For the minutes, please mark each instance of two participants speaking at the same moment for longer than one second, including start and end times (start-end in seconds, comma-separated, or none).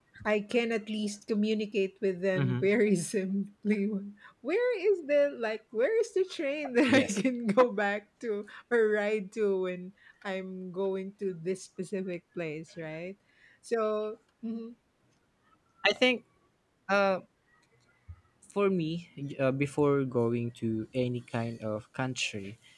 none